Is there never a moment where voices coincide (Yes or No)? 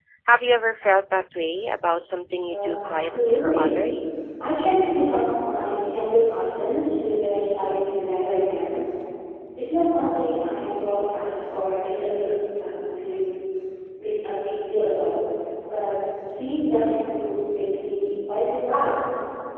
No